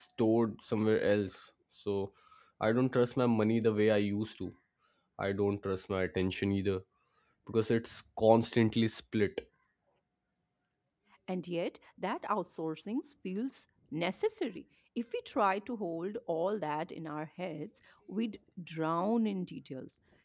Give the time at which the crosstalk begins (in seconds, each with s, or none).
none